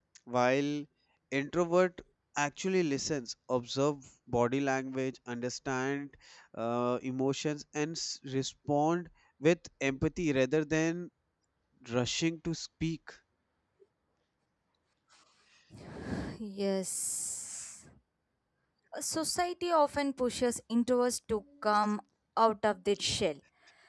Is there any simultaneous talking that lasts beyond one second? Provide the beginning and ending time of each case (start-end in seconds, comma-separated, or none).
none